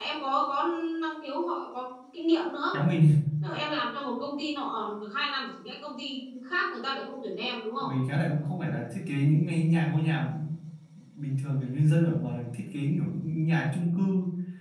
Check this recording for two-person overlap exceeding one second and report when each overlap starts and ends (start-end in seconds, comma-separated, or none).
none